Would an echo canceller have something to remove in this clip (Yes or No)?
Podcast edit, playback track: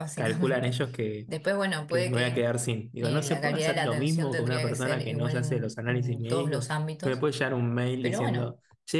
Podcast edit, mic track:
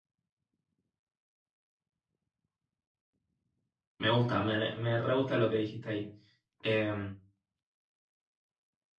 No